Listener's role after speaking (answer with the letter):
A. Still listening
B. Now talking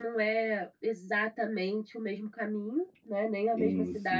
A